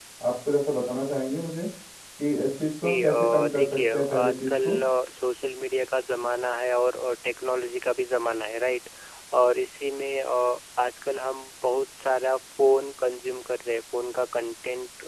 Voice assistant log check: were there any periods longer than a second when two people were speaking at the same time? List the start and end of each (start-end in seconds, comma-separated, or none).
2.8-4.8